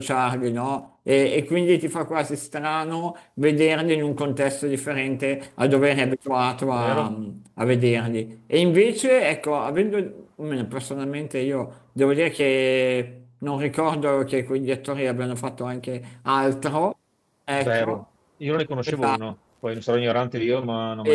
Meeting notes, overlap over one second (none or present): none